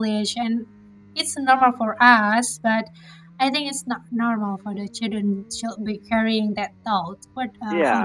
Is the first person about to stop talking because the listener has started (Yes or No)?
Yes